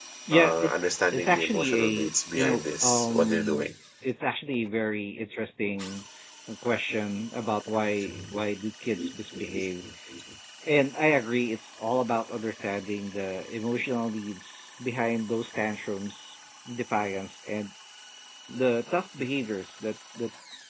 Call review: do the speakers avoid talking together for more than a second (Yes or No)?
No